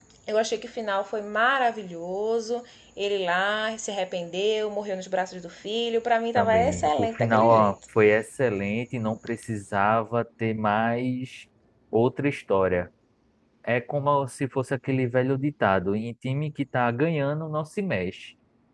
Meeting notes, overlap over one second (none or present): present